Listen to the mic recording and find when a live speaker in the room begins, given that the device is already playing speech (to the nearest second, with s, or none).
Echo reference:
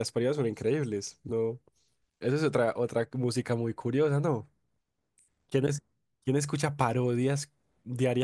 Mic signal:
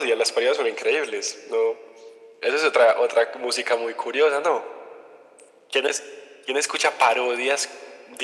none